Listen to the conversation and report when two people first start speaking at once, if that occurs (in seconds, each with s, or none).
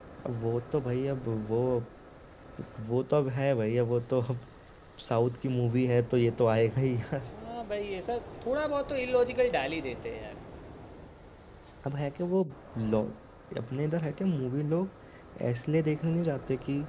none